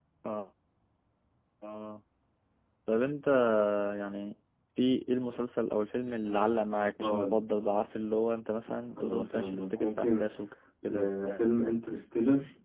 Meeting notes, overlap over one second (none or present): present